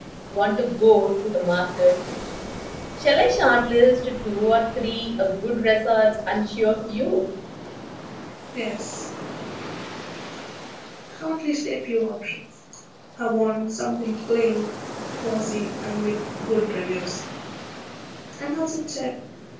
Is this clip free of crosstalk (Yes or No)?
Yes